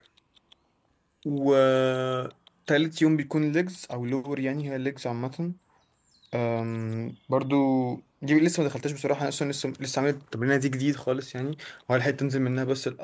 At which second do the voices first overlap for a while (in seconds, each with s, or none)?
none